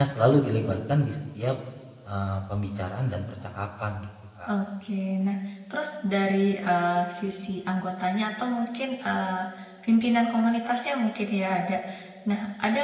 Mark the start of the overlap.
none

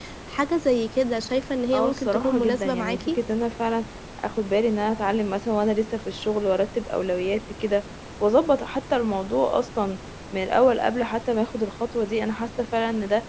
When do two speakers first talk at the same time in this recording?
1.7 s

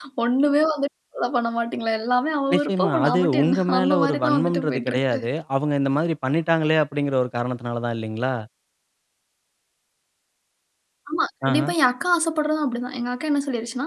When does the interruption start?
2.5 s

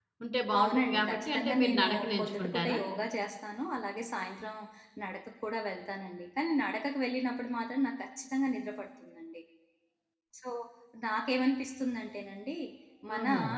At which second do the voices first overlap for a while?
0.6 s

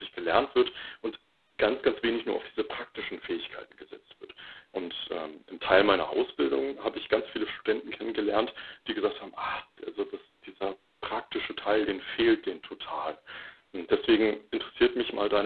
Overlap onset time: none

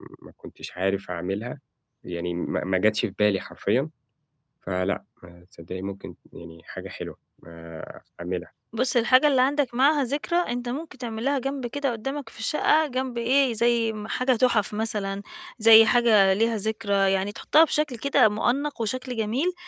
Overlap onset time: none

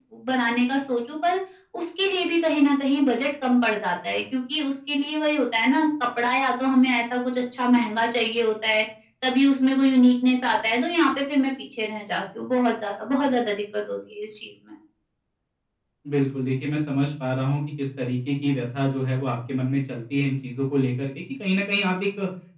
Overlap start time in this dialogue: none

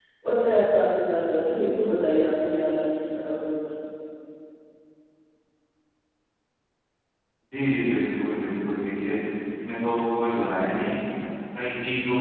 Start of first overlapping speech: none

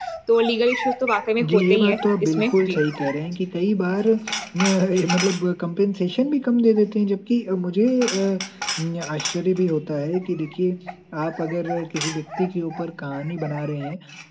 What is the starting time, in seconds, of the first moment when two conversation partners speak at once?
1.4 s

